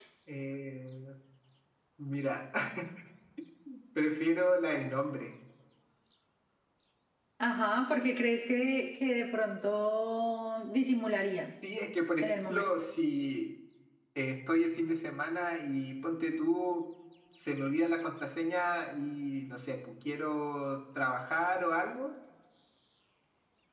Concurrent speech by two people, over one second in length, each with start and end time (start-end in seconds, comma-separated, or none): none